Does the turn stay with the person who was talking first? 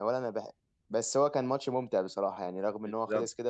No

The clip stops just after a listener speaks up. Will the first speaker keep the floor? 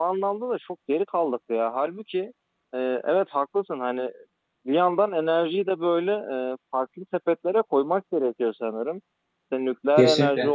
Yes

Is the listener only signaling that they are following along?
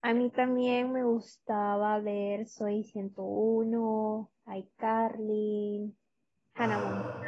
No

